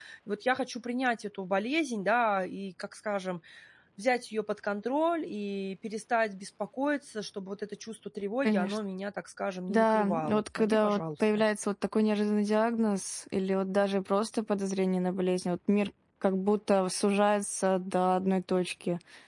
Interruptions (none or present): present